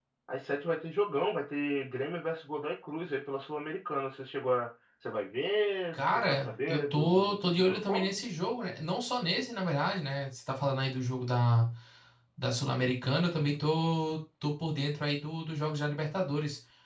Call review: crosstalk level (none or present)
present